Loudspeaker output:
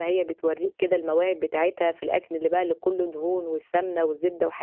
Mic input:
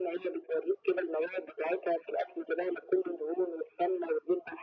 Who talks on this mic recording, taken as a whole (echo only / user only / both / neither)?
echo only